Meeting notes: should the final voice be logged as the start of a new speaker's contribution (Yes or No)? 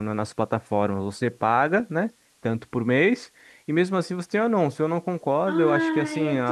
Yes